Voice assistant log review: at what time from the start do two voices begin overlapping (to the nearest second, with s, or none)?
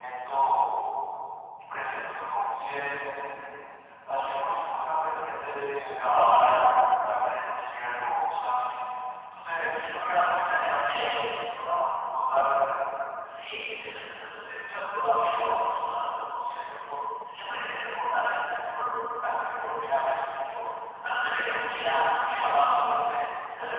10 s